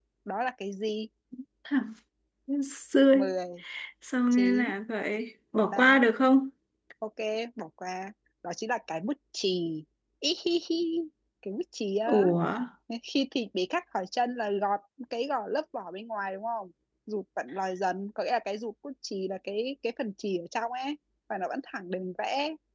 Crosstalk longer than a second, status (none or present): none